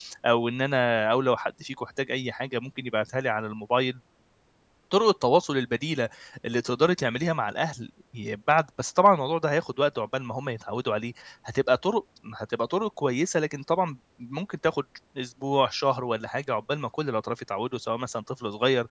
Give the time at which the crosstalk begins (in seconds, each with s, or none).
none